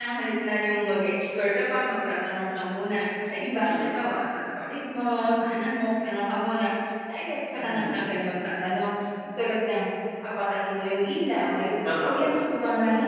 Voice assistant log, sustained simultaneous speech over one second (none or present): none